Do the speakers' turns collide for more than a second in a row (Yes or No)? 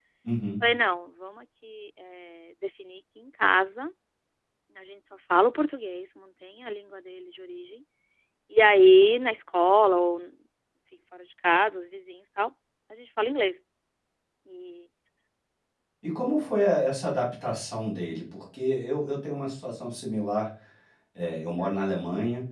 No